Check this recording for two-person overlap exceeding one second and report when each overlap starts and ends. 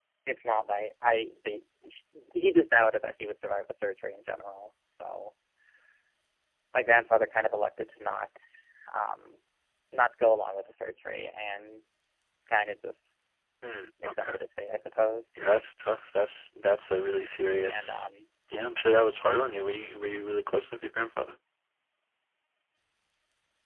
none

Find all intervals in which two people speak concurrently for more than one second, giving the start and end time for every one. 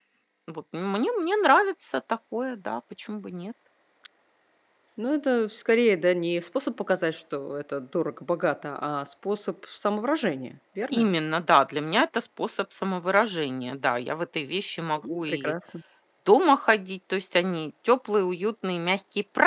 none

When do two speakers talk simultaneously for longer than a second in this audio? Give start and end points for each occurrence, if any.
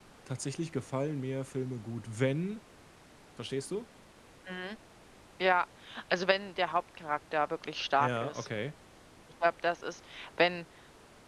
none

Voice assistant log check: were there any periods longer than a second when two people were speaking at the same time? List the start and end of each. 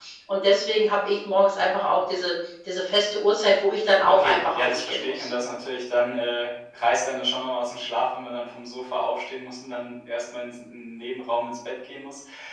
4.1-5.3

